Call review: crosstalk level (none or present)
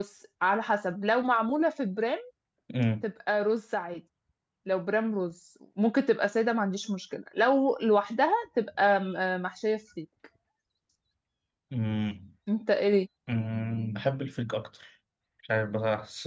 none